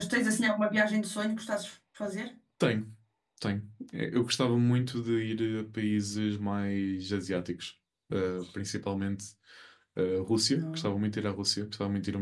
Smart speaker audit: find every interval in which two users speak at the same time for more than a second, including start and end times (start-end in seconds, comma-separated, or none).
none